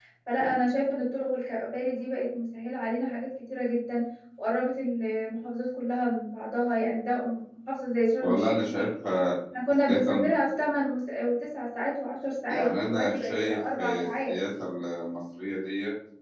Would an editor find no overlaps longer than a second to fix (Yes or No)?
No